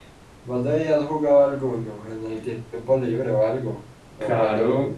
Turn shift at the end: Yes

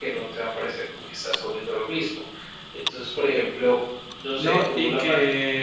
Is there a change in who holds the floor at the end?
Yes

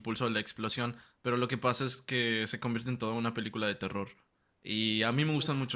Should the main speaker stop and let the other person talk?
No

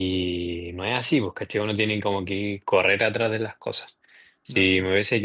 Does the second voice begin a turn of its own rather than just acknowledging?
No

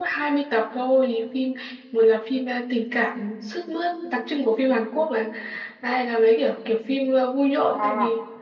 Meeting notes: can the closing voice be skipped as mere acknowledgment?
No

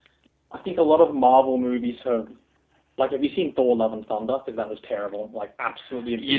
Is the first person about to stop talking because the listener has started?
Yes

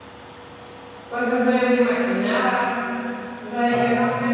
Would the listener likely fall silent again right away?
Yes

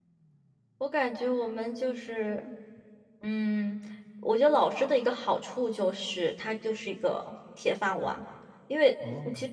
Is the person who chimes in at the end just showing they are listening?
Yes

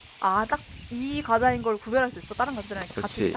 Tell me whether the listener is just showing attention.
No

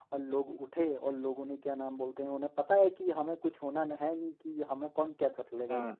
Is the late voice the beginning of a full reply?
No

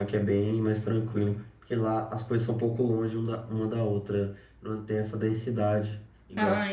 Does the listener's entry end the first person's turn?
Yes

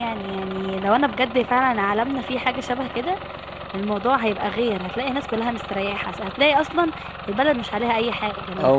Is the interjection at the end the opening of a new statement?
Yes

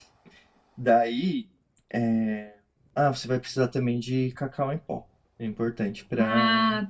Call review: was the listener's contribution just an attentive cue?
Yes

